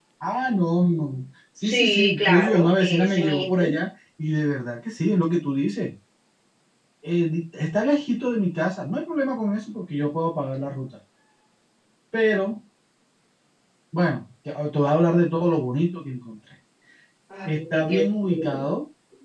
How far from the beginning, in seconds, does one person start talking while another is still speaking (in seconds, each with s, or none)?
1.6 s